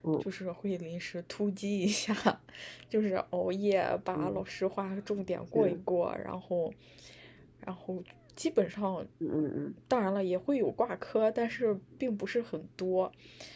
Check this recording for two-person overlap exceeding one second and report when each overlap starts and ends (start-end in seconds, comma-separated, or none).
none